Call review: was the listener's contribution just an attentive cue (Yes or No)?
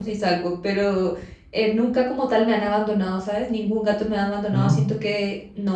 Yes